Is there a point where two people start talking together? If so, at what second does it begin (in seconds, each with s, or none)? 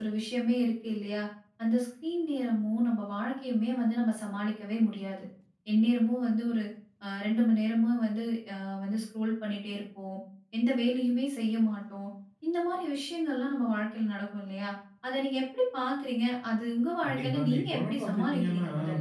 17.0 s